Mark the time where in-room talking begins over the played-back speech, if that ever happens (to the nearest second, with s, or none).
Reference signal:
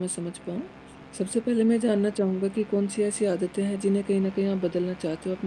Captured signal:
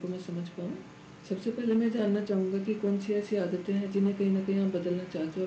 none